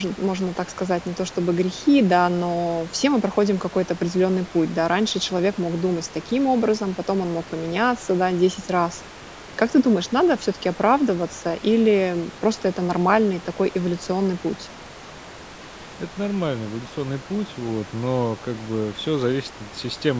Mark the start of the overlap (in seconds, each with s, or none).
none